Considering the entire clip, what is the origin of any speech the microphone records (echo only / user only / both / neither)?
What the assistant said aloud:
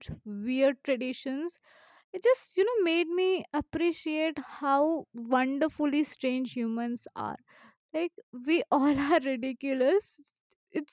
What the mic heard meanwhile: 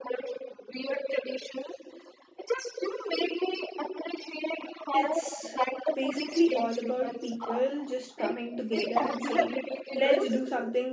both